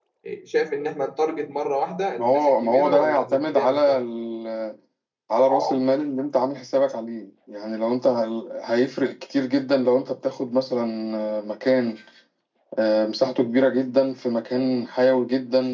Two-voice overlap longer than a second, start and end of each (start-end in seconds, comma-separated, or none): 2.2-4.0